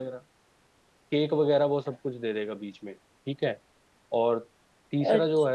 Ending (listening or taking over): listening